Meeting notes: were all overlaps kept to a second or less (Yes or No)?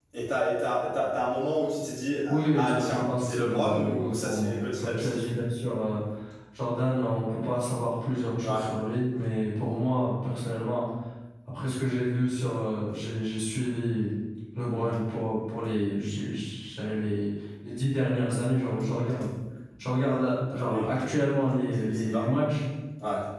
No